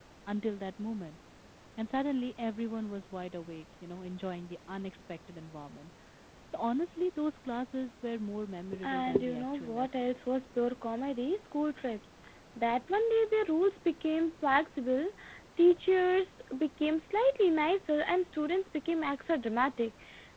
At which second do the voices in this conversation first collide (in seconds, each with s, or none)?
8.7 s